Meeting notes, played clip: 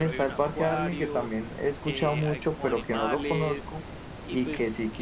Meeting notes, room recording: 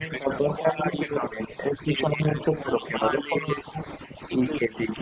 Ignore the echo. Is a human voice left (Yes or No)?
No